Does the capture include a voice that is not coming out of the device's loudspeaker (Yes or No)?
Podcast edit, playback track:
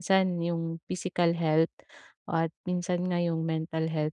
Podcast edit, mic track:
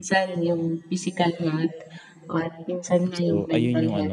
Yes